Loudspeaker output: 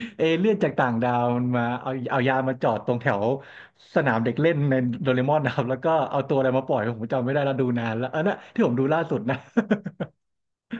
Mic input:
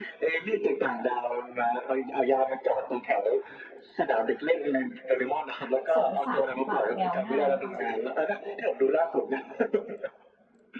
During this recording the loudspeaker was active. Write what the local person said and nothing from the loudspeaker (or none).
สงสารหมาแมวง่ายมั้งคะแบบ